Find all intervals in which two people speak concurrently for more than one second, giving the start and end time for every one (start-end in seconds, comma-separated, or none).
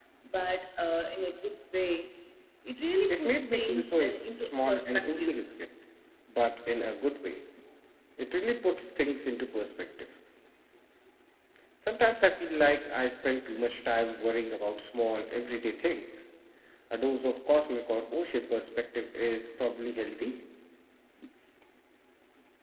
3.1-5.4